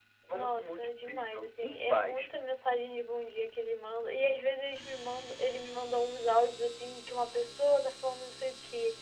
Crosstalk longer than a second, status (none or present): present